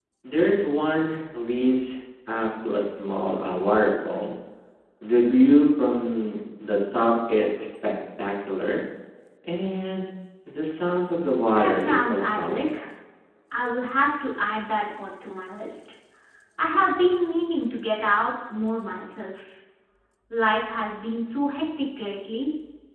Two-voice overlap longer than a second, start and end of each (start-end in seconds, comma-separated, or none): 11.5-12.8